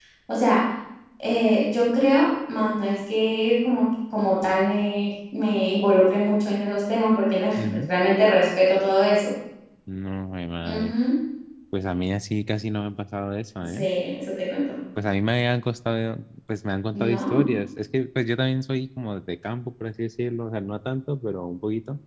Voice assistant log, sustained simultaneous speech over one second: none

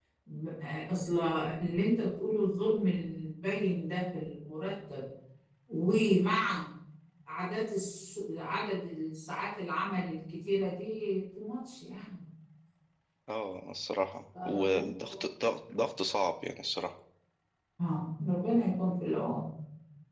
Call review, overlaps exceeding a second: none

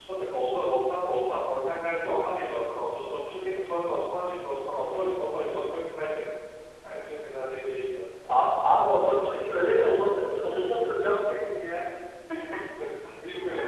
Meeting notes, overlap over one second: none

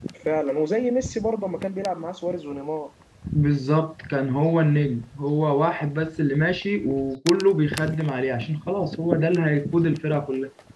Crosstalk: none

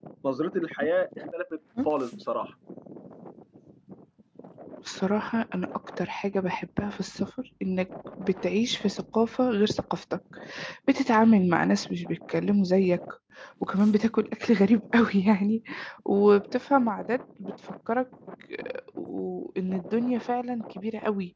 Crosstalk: none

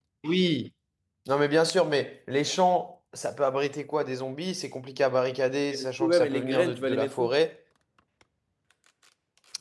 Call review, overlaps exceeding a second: present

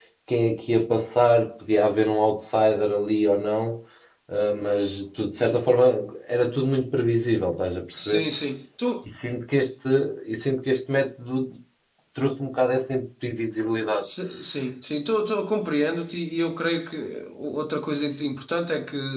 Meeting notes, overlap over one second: none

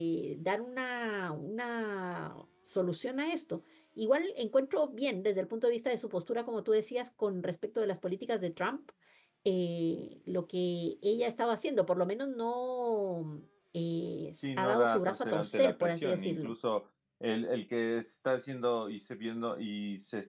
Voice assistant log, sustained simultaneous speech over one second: present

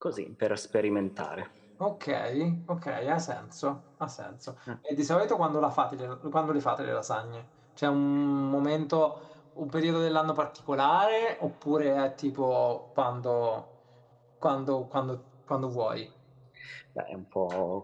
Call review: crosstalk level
none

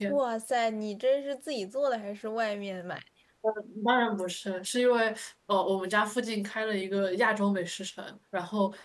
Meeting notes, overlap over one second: none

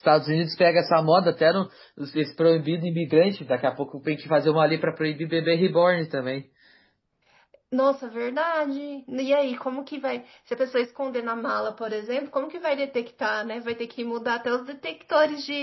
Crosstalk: none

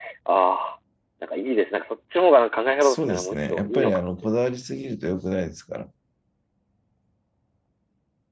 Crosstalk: present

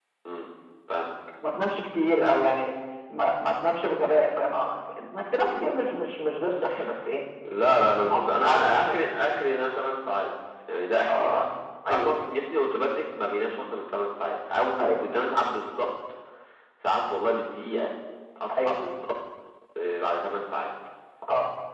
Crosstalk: present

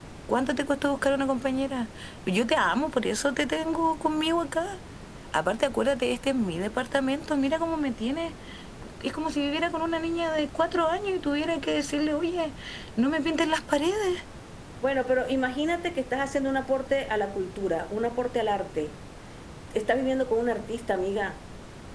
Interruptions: none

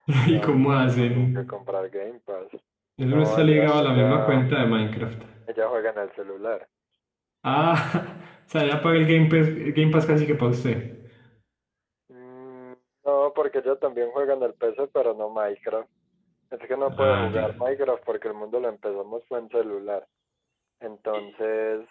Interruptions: present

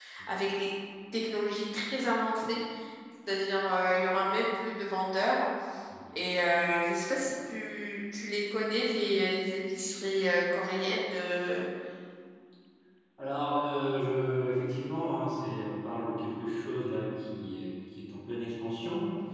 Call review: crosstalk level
none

